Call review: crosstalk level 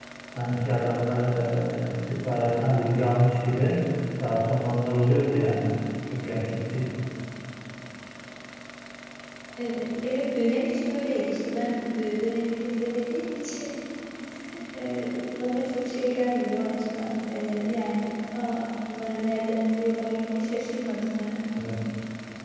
none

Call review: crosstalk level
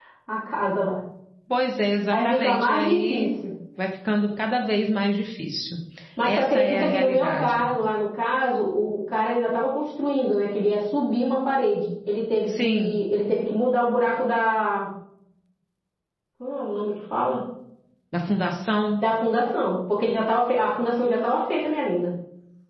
present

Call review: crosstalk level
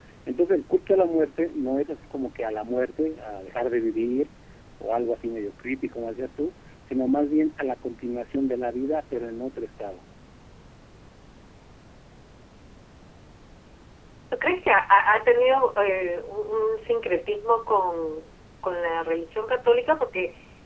none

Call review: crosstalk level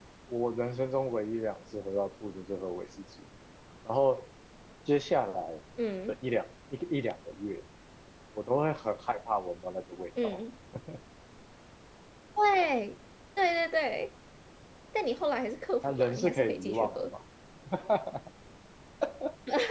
present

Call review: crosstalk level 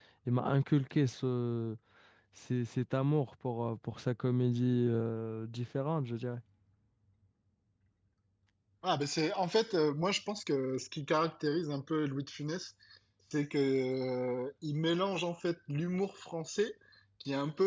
none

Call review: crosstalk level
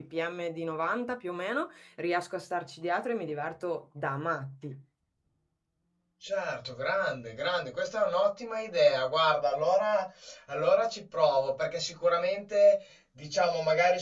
none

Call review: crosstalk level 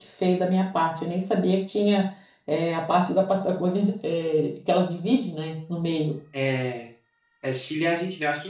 none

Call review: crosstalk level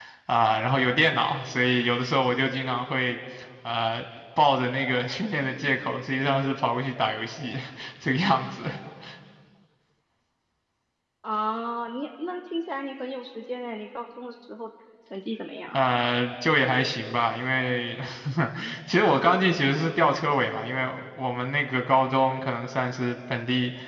none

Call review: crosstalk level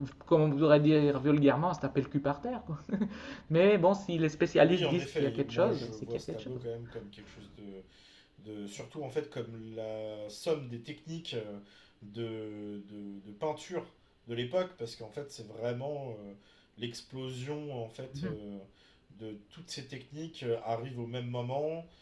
present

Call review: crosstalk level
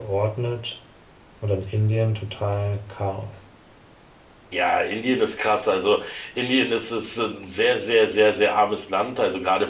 none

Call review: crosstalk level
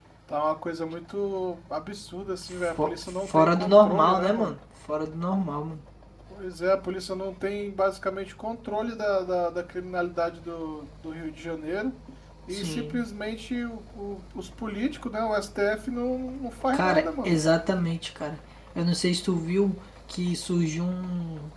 present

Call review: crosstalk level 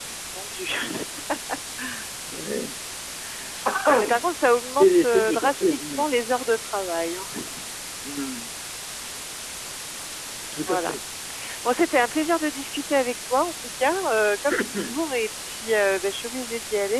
present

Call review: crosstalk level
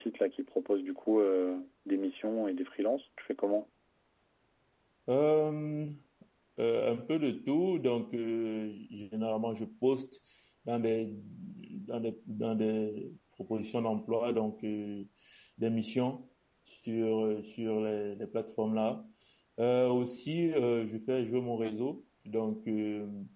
none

